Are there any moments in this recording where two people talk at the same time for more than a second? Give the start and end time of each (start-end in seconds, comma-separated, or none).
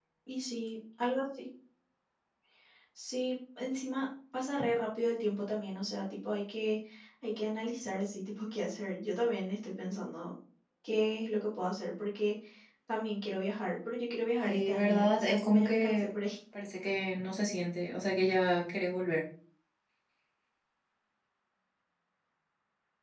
14.4-16.1